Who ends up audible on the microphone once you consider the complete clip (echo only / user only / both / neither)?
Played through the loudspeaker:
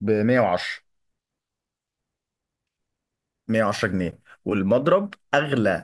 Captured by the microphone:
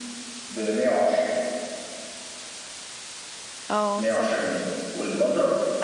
both